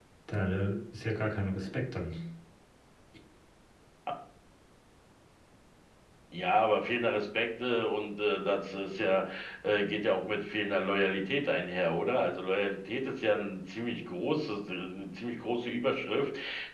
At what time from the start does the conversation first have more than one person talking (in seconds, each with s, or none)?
none